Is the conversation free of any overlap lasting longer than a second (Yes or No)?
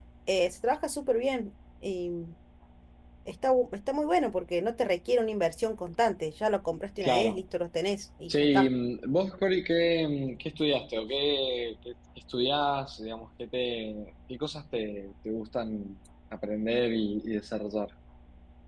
Yes